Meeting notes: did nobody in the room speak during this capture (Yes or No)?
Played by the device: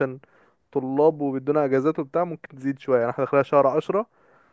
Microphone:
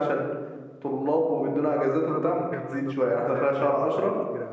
No